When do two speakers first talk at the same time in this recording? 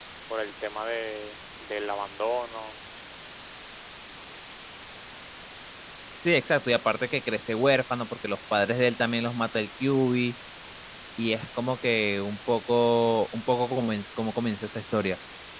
none

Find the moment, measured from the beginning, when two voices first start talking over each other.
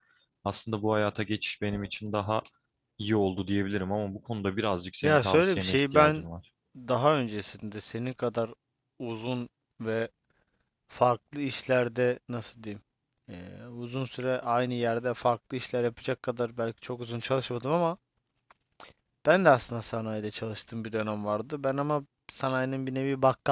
5.0 s

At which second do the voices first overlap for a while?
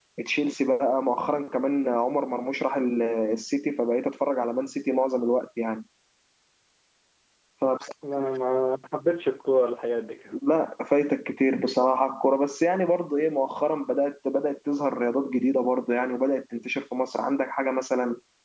none

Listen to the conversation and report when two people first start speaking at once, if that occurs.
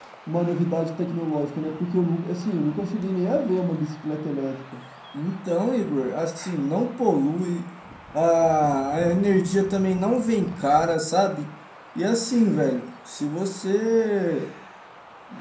none

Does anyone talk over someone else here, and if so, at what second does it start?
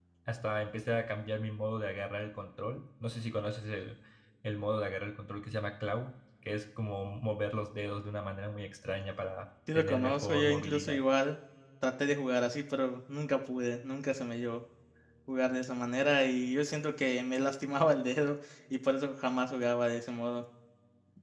9.7 s

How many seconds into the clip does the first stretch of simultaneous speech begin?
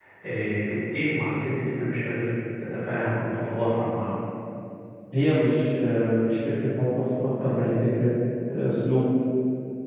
none

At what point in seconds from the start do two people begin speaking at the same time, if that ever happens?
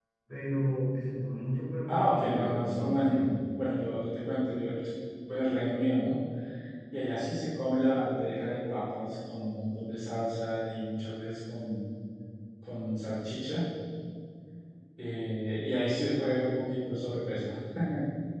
1.9 s

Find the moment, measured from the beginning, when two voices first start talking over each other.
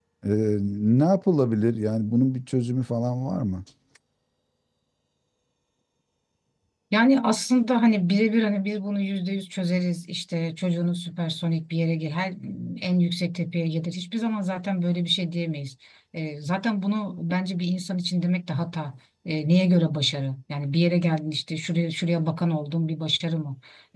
none

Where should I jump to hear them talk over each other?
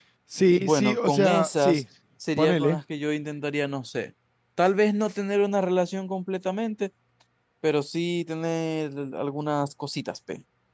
0.6 s

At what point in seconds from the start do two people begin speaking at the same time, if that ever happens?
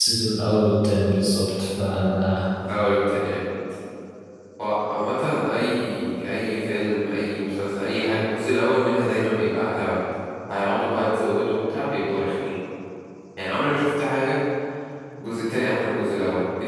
none

